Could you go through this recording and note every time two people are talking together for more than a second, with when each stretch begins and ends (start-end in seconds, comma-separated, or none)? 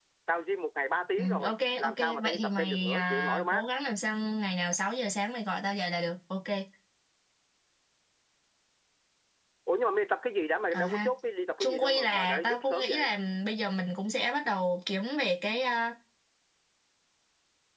1.2-3.6, 11.6-13.1